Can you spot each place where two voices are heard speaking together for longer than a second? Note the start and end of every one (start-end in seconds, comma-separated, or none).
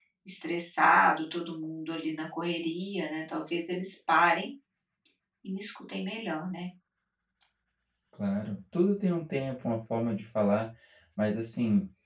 none